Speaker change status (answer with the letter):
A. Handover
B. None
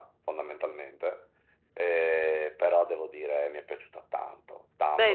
A